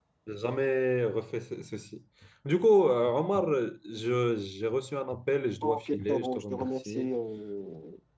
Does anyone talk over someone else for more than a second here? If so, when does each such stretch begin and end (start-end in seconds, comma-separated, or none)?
5.6-7.1